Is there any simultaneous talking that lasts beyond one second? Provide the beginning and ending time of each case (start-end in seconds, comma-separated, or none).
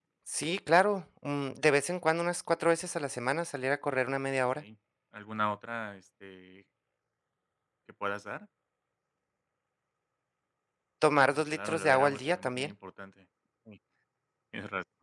11.3-12.7